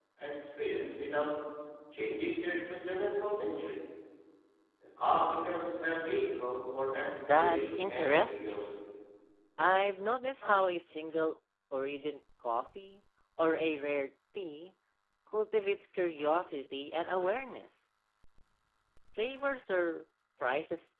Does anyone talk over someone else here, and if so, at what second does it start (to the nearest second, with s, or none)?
7 s